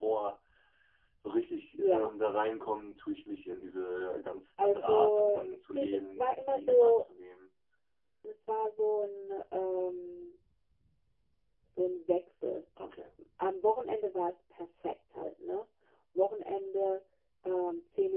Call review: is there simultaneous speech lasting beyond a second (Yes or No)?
Yes